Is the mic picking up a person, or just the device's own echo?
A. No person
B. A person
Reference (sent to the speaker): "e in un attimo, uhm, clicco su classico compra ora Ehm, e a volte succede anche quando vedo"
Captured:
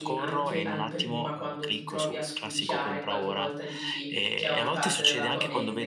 B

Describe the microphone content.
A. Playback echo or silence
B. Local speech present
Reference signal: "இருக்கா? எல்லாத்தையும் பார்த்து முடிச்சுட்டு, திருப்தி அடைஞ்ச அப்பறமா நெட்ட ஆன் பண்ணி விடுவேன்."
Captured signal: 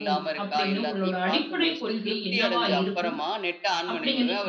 B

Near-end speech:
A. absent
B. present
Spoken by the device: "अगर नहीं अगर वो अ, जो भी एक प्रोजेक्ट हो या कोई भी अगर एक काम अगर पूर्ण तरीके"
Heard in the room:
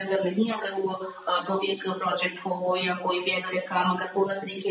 A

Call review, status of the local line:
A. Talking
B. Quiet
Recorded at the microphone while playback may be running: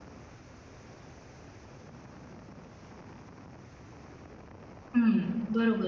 A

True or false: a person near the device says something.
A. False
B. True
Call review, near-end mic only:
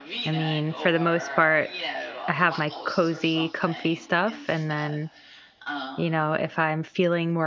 B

